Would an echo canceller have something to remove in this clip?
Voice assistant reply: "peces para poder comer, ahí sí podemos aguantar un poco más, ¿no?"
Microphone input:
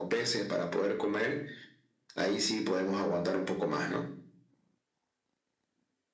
Yes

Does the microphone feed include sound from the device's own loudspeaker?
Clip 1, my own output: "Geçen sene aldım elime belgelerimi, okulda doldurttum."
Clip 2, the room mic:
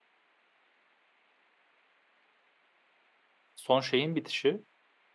No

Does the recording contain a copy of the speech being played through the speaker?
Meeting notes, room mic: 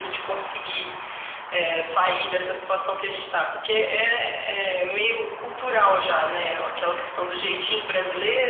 Yes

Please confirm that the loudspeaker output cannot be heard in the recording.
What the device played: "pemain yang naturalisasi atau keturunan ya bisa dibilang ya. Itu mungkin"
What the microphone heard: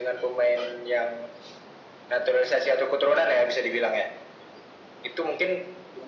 No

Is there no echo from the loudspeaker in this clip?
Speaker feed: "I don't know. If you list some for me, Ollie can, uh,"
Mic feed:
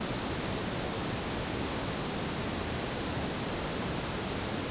Yes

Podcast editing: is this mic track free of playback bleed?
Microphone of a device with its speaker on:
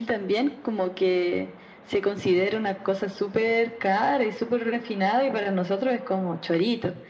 No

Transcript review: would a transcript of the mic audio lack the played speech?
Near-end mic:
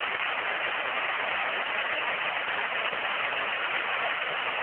Yes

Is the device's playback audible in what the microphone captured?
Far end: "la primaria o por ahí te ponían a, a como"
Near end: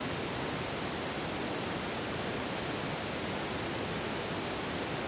No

